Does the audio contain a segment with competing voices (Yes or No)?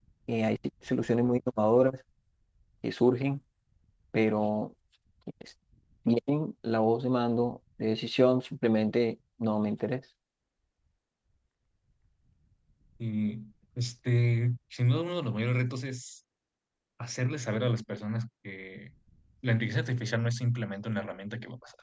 No